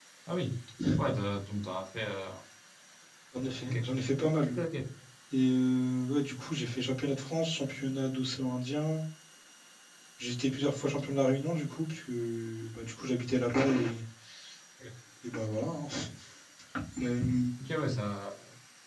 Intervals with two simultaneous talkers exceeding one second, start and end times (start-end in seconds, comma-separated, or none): none